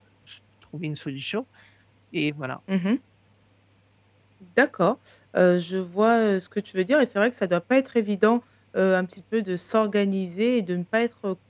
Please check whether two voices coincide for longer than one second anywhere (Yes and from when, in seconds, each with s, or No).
No